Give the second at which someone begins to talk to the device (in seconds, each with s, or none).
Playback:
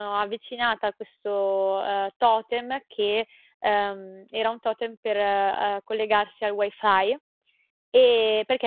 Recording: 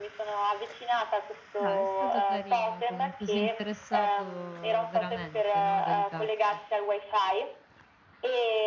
1.5 s